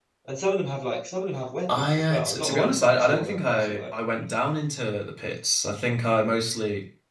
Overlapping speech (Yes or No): Yes